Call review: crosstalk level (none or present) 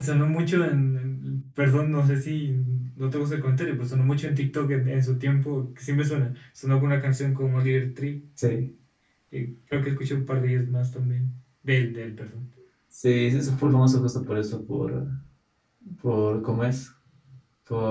none